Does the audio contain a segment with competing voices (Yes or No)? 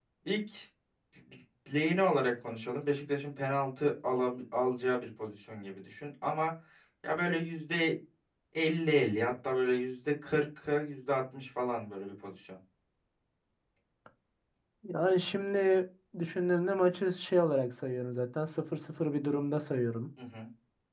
No